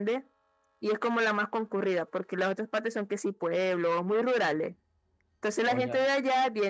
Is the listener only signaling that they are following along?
Yes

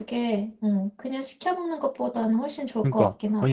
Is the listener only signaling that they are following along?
No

